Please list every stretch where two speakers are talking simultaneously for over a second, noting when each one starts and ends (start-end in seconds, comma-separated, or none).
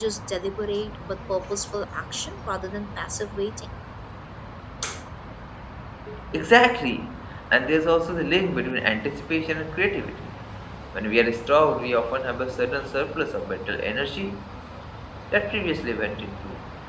none